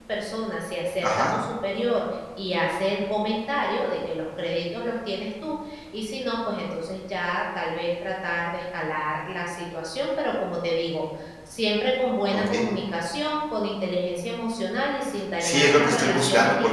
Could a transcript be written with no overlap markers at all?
No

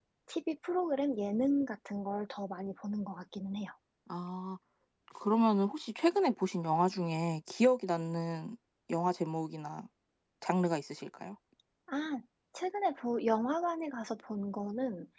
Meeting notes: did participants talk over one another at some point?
No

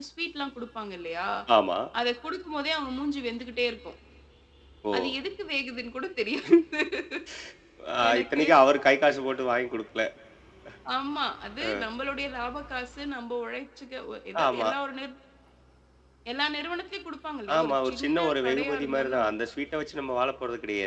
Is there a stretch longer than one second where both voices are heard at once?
Yes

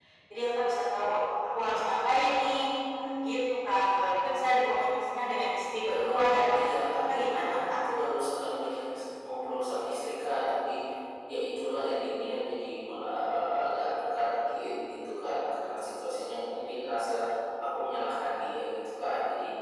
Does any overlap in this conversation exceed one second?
Yes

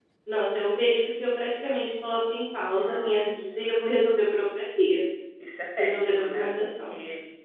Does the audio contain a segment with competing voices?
Yes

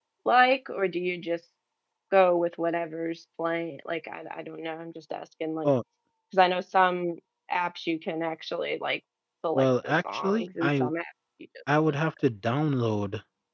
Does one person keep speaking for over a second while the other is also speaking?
Yes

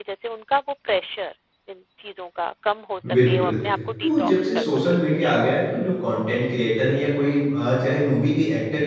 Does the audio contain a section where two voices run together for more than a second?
Yes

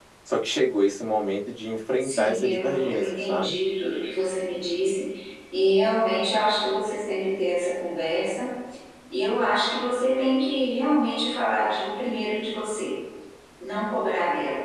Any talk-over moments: Yes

